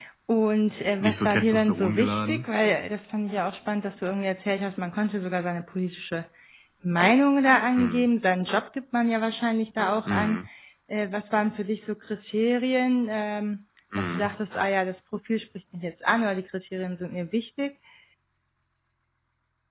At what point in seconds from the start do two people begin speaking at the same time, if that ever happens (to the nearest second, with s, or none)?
1 s